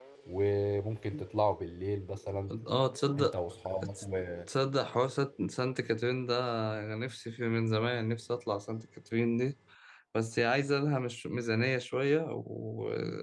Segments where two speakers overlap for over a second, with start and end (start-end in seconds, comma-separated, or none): none